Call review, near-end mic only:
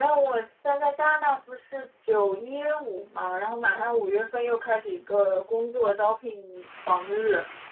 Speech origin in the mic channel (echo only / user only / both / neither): echo only